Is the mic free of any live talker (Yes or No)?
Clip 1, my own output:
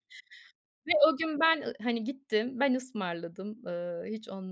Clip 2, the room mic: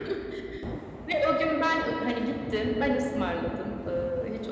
Yes